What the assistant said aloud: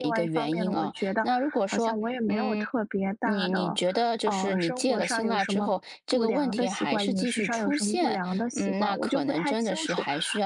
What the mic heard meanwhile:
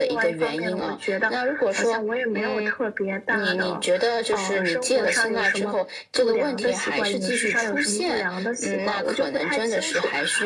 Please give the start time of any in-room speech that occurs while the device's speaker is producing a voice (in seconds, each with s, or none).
none